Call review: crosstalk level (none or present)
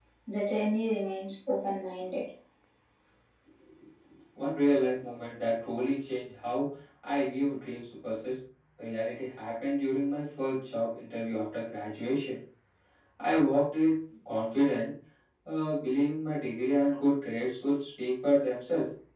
none